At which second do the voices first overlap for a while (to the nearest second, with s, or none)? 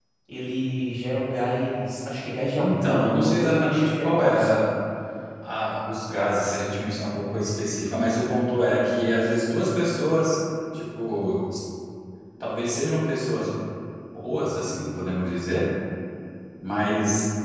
3 s